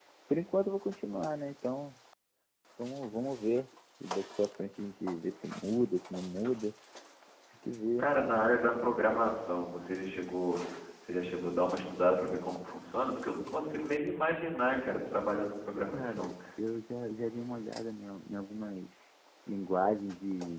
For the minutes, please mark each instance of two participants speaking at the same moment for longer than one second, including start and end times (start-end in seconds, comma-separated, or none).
none